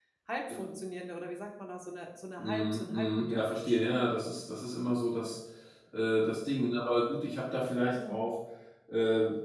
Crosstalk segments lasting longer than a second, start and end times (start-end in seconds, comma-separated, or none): 2.4-3.8